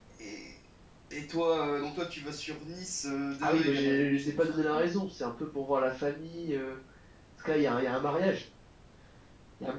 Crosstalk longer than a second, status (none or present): present